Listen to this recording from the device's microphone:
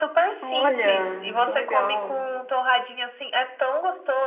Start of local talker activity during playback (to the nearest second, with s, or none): 0 s